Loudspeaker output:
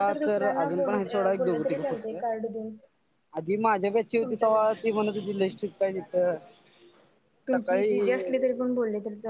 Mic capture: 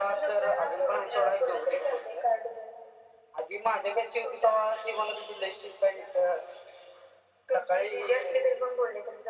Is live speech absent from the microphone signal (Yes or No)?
Yes